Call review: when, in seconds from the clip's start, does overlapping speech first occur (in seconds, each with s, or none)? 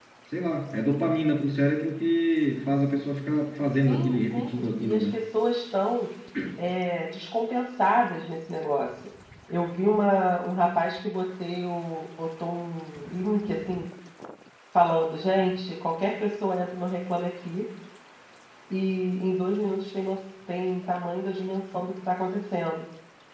3.9 s